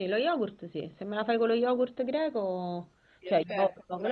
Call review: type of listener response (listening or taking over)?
taking over